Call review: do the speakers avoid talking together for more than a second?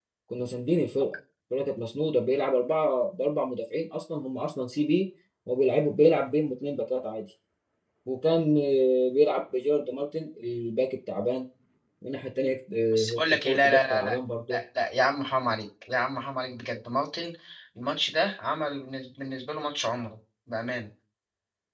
No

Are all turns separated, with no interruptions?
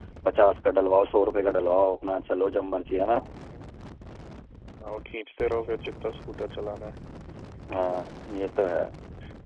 Yes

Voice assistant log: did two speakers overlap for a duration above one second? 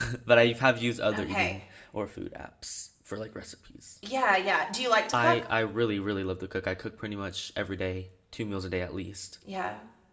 No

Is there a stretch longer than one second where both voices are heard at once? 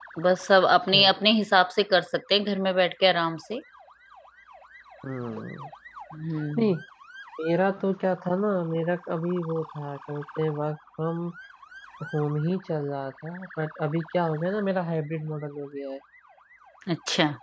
No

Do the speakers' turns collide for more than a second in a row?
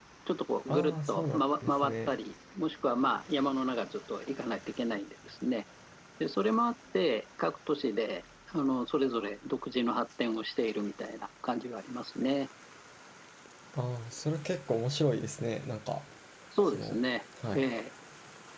Yes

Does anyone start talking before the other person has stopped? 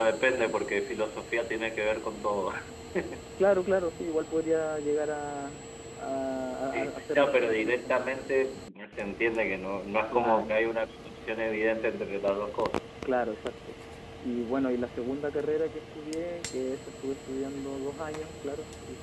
Yes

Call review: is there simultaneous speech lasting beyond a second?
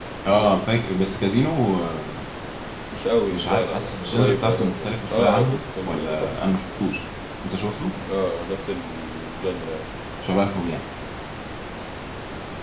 Yes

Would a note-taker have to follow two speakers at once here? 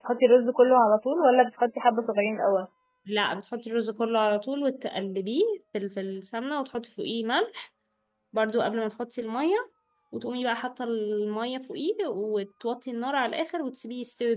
No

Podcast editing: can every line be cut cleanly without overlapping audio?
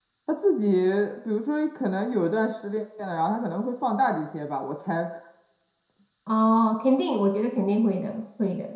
Yes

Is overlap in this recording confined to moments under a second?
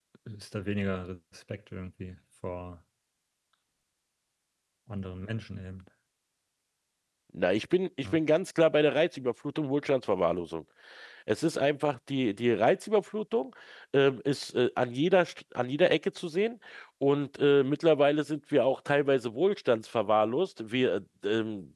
Yes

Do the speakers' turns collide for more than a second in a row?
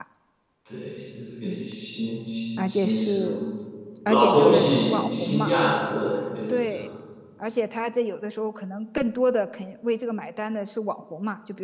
Yes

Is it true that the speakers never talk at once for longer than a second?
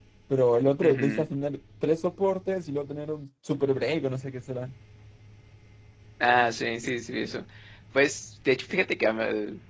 Yes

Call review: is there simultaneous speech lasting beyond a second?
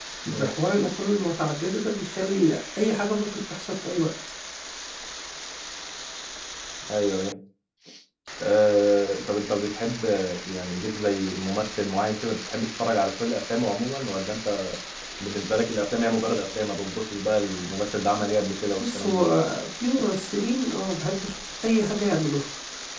No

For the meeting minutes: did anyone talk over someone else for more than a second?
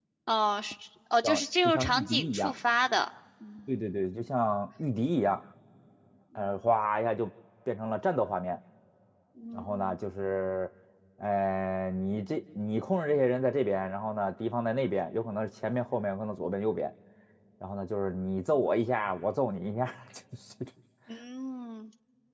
Yes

